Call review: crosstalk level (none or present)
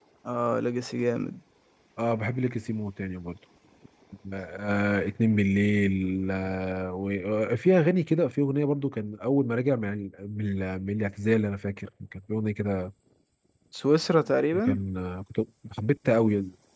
none